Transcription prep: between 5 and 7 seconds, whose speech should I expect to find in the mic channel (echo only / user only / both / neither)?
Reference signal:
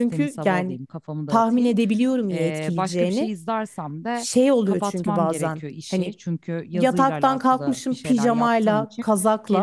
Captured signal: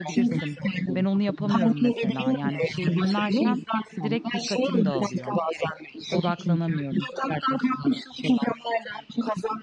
both